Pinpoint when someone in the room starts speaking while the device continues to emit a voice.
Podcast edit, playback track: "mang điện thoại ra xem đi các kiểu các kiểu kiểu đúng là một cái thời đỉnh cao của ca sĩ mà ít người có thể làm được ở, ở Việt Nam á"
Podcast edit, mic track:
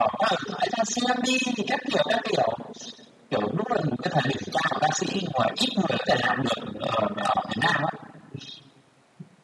none

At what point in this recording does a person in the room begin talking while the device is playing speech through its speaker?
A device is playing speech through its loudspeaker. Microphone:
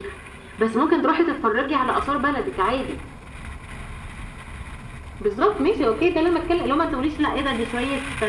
none

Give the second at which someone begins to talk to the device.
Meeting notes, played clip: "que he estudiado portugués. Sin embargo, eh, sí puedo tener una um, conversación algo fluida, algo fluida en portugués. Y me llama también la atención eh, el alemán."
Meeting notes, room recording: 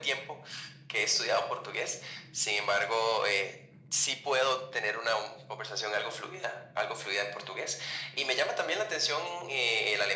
none

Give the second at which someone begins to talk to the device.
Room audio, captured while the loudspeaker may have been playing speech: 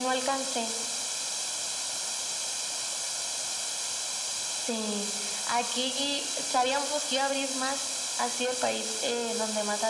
none

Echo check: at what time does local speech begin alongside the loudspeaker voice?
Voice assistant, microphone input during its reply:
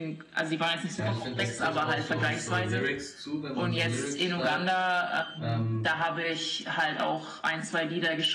1.0 s

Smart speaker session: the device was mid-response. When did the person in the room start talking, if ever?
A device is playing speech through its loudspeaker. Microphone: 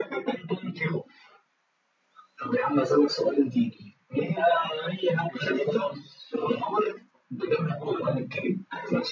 none

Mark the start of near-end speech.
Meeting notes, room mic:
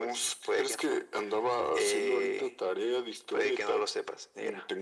none

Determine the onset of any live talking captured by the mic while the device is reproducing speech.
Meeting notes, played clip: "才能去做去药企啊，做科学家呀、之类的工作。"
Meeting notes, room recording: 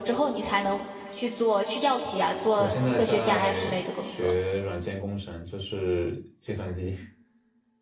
2.5 s

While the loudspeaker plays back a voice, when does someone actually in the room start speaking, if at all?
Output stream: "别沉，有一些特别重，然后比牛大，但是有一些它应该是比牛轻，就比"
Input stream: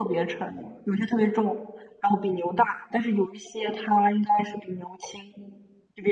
none

